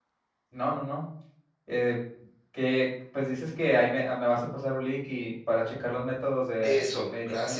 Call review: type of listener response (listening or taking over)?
taking over